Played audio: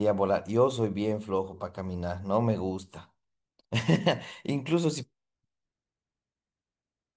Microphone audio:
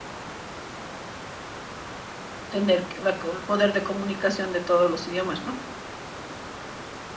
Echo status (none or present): none